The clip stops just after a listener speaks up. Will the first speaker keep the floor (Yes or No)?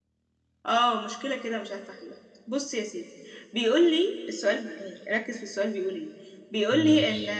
Yes